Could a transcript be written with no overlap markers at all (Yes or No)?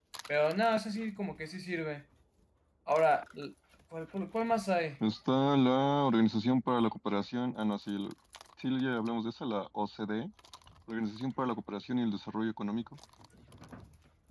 Yes